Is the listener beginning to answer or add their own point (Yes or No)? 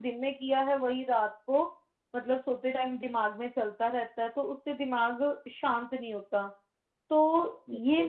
No